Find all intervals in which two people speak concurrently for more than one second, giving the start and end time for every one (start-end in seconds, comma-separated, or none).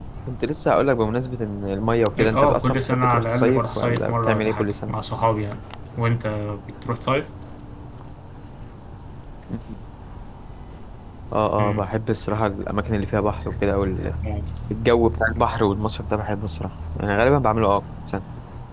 2.2-4.9